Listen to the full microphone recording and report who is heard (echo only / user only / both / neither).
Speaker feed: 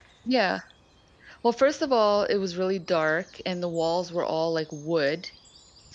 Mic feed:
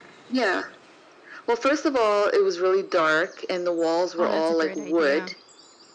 both